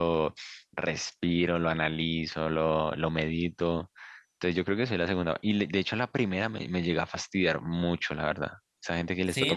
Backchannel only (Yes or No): No